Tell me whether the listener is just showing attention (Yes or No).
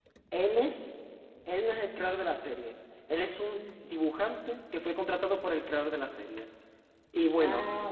Yes